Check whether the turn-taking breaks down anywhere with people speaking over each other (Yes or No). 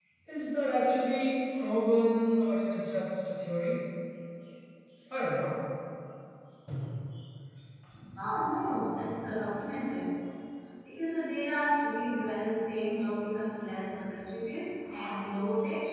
No